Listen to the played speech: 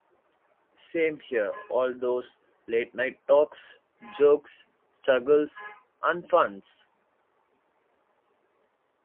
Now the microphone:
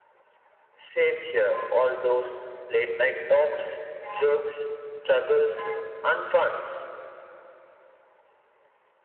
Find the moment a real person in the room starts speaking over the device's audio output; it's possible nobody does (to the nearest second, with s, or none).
none